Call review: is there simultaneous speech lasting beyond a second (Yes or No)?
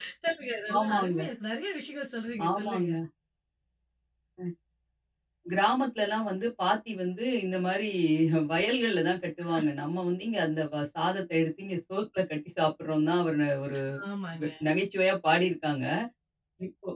No